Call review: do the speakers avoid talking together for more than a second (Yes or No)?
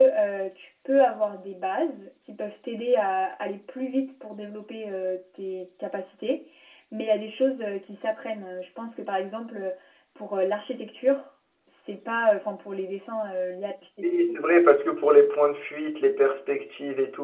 Yes